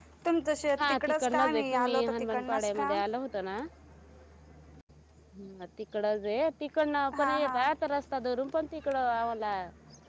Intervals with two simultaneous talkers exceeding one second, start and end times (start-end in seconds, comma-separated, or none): 0.8-2.9